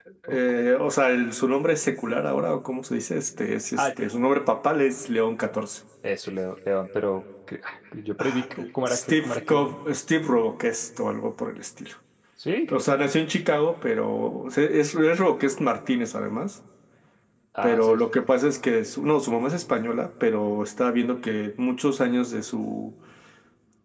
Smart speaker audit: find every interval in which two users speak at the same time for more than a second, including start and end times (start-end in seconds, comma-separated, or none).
8.2-9.8